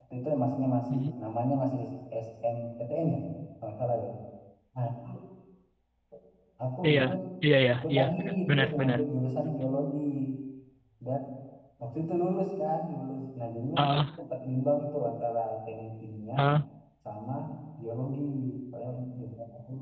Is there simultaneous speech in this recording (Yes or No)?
Yes